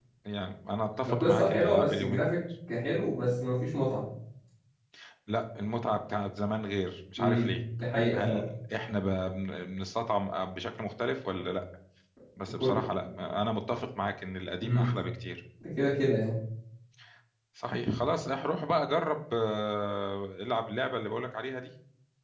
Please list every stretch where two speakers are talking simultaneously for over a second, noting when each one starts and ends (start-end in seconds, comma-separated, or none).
1.1-2.4